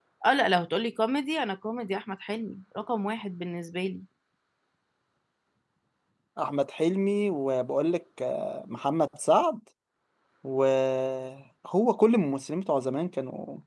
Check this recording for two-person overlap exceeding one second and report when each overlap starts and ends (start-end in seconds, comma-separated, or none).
none